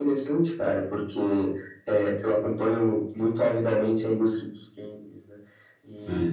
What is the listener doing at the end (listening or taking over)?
taking over